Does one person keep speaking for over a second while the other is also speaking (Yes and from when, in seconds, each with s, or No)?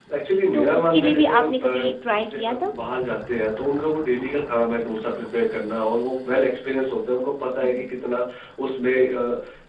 Yes, from 0.5 s